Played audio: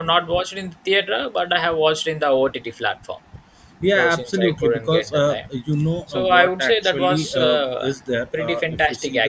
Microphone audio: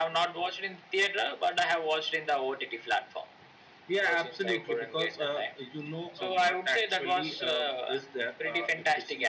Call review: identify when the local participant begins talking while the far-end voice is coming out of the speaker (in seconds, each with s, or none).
none